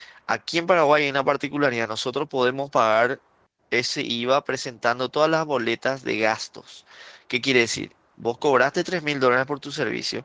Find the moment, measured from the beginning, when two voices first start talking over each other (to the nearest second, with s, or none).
none